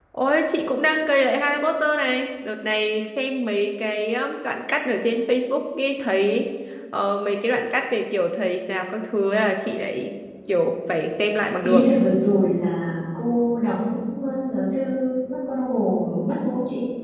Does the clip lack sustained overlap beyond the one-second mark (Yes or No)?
Yes